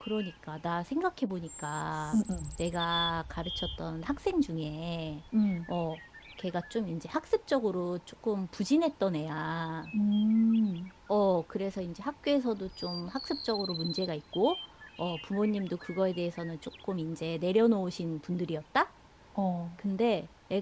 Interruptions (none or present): none